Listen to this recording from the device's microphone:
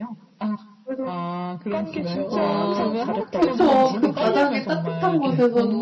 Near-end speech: present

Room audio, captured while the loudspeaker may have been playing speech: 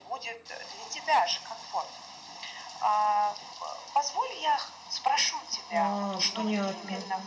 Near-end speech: present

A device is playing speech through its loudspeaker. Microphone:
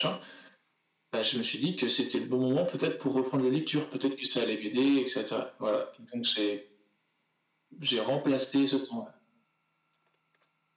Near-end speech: none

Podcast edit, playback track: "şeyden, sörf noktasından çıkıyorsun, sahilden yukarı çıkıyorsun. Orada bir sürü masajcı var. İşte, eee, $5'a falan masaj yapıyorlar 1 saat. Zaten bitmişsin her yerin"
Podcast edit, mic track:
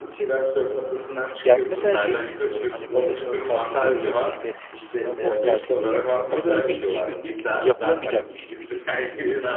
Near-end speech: present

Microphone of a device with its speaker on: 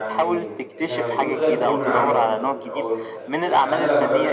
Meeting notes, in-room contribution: present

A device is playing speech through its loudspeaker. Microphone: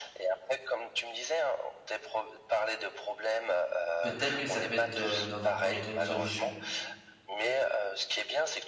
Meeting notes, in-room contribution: present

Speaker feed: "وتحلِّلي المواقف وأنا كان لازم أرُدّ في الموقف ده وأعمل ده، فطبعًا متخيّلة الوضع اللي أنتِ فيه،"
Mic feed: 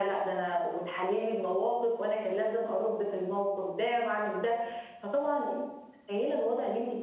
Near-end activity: none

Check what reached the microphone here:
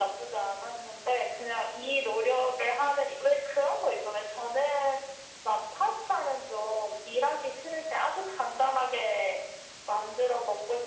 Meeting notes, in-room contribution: none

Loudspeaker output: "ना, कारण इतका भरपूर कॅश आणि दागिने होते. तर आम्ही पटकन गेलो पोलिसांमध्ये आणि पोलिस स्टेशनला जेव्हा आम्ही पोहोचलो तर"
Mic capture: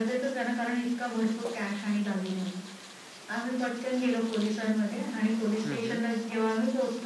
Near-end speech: present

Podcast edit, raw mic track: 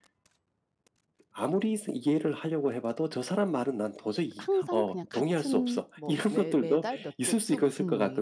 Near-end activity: present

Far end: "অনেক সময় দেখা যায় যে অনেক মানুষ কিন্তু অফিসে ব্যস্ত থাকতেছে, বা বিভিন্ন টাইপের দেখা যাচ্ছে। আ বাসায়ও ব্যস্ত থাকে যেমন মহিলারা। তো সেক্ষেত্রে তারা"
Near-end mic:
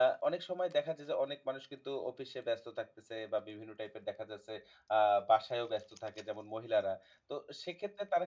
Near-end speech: none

